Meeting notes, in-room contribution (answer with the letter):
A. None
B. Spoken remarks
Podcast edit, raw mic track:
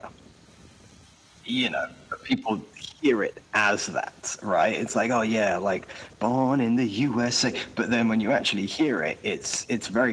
A